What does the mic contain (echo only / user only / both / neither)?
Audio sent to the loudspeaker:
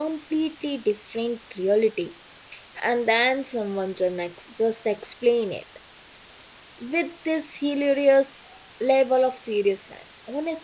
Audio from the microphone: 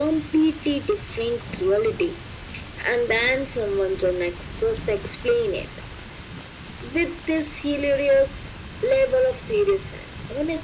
echo only